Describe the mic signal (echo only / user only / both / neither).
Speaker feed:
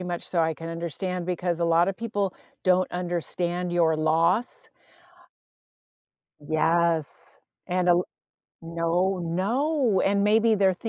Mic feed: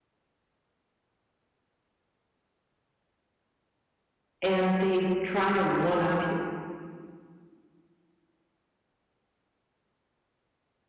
user only